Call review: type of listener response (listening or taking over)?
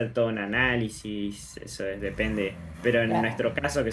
listening